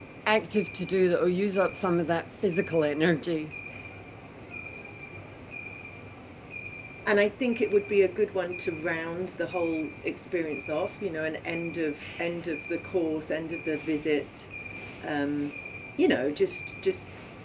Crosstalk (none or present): none